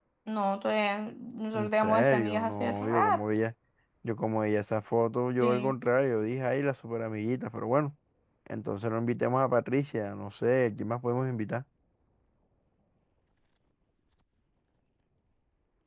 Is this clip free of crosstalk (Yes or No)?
No